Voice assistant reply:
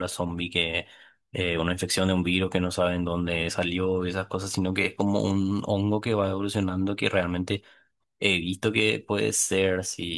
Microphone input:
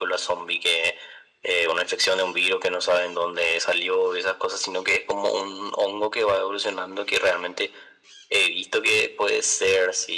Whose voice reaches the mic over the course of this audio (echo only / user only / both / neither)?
echo only